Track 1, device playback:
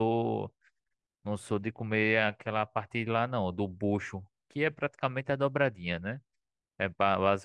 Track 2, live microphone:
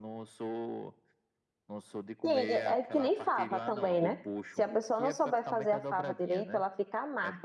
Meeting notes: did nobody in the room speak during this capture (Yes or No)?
No